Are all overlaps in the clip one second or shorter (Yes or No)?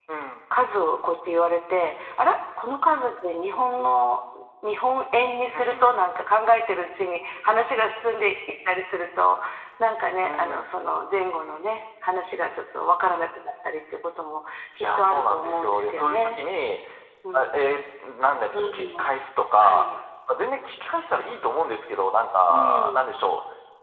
No